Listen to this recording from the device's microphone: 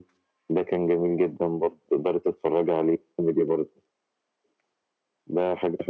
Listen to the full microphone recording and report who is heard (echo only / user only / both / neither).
echo only